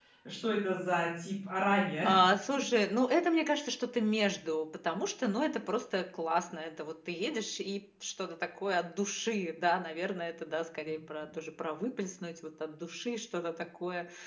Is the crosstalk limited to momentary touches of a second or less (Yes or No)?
Yes